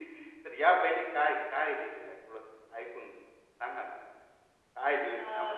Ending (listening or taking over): listening